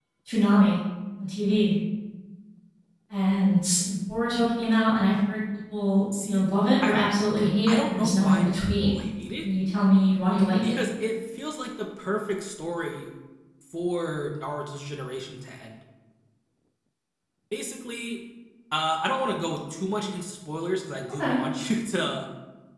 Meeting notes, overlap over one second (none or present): present